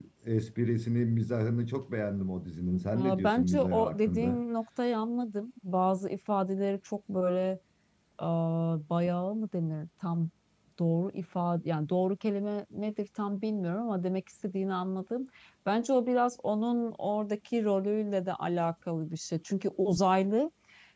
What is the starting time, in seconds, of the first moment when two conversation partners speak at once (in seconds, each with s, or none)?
2.9 s